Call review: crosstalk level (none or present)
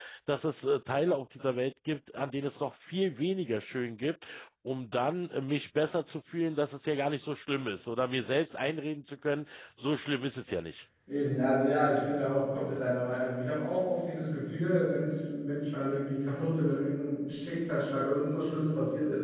none